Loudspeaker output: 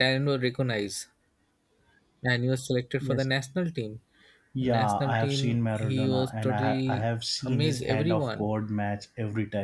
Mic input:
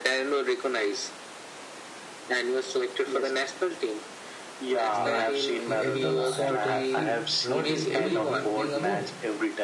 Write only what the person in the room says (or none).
Like he everyone was shocked in the field. What he doing? He's playing alone.